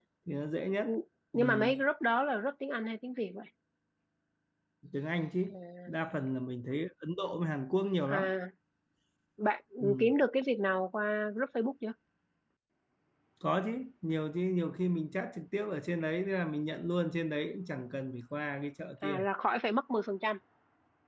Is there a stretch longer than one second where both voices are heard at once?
No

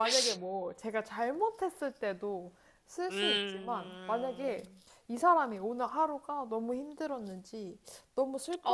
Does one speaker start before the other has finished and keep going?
Yes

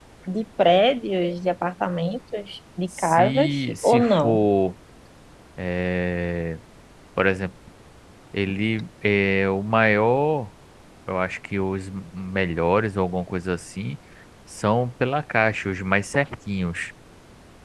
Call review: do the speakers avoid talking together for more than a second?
No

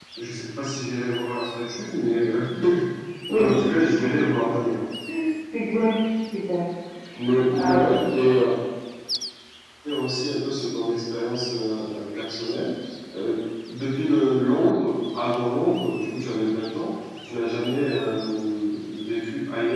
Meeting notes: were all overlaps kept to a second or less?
Yes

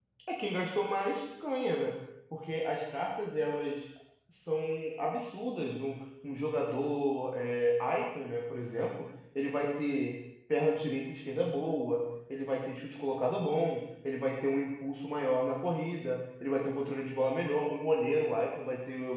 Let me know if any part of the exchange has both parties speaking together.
No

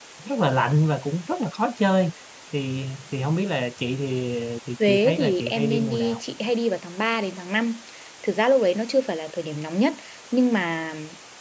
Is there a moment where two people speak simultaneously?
Yes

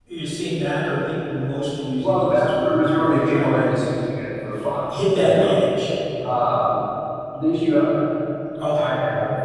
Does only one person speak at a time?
No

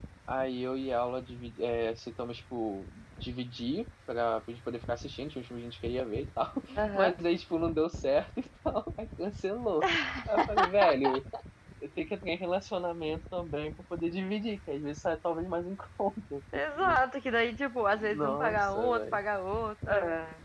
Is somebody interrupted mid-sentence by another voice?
Yes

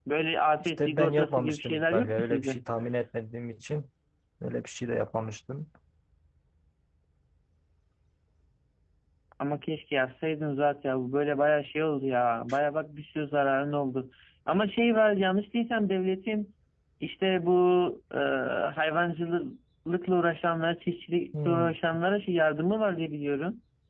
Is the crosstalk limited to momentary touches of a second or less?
No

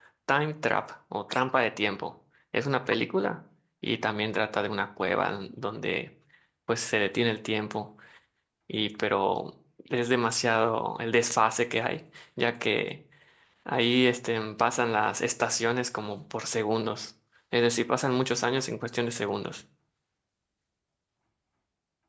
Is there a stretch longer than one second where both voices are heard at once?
No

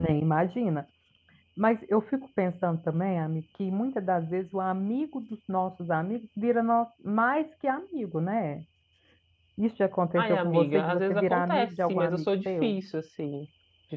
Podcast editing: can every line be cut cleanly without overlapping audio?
No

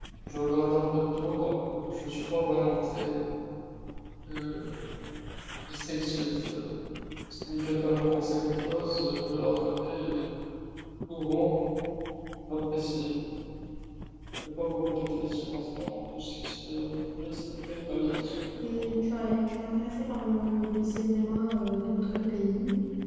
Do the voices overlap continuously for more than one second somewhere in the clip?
No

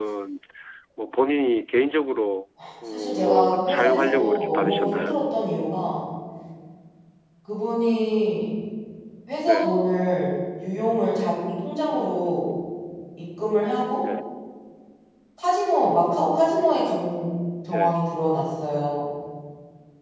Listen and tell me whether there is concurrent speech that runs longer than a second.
Yes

